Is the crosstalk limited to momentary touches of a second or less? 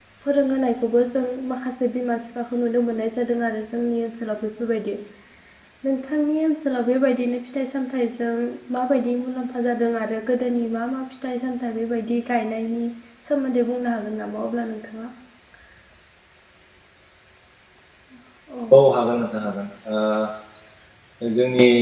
Yes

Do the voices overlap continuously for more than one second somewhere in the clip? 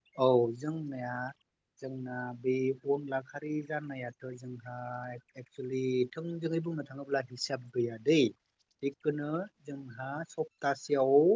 No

